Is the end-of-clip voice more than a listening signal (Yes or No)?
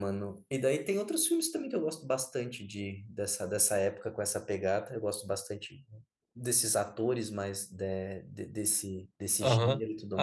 Yes